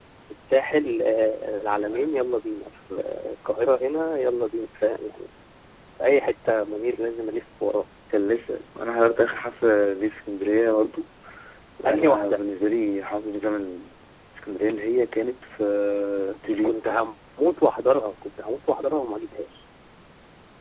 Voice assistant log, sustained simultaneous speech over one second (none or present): none